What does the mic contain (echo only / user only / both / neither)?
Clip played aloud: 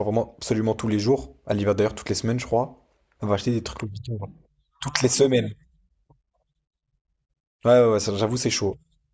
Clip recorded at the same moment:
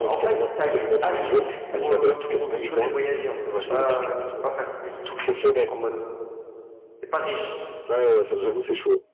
both